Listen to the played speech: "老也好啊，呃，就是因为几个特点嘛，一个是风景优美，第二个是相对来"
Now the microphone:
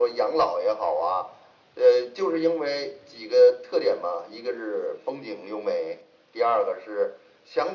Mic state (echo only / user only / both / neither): echo only